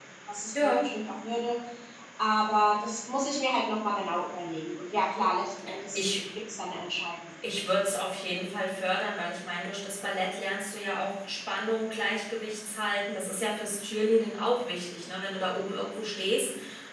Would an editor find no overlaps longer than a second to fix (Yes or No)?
Yes